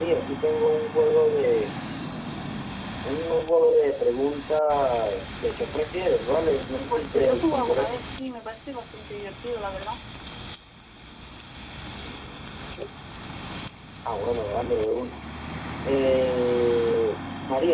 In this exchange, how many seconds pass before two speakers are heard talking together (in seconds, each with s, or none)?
6.8 s